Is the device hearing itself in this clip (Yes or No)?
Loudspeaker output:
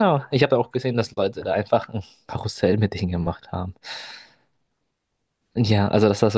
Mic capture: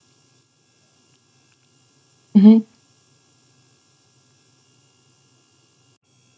No